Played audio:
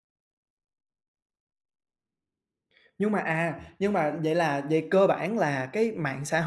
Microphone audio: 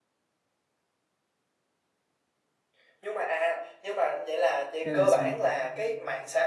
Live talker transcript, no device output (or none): Hay là sao?